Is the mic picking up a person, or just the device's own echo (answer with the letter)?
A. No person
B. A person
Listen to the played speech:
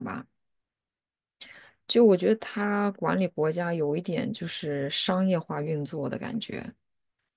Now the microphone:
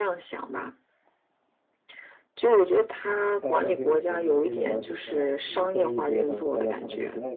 B